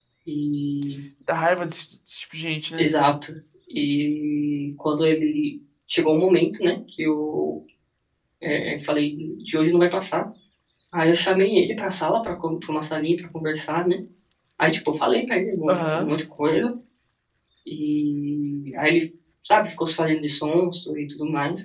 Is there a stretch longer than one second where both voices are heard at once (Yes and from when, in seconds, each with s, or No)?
No